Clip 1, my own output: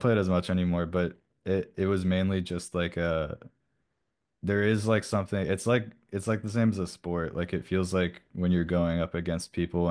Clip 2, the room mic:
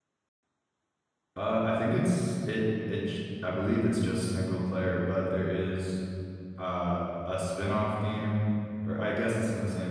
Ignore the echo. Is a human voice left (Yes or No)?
Yes